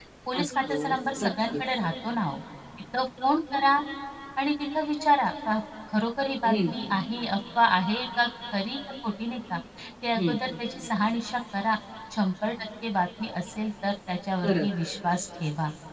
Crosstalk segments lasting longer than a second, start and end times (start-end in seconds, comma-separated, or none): none